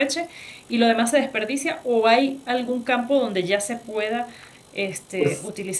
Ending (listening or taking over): listening